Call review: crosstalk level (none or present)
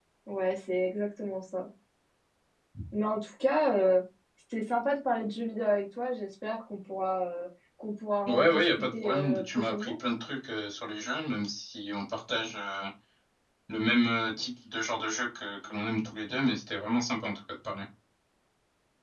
present